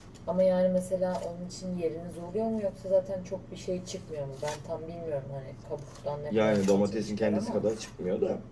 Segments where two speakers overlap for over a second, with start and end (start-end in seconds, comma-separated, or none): 6.3-7.7